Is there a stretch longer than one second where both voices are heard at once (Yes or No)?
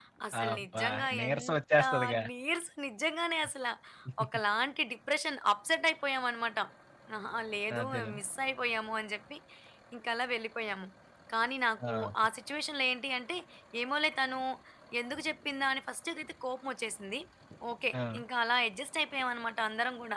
Yes